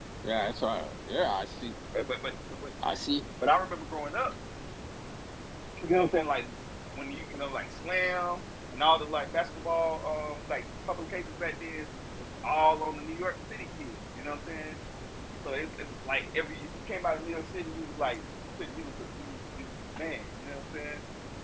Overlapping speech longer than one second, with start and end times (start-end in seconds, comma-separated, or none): none